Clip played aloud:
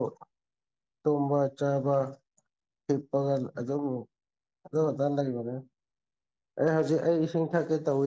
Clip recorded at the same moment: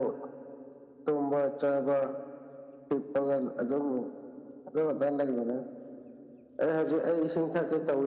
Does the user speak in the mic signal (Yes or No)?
No